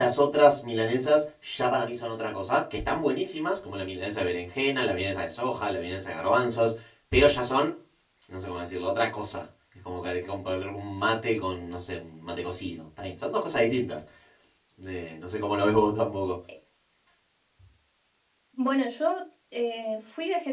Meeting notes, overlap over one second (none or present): none